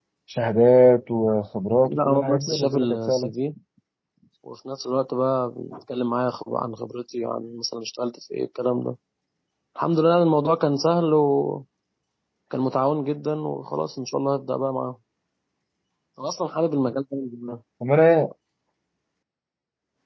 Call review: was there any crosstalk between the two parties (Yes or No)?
Yes